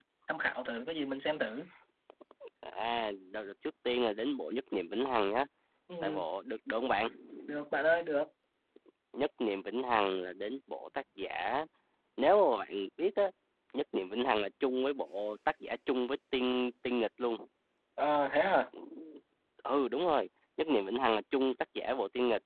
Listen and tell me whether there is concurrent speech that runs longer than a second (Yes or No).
No